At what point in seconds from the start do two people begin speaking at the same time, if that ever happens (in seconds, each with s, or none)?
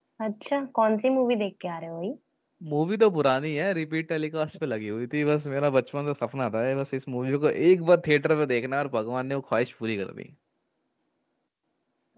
none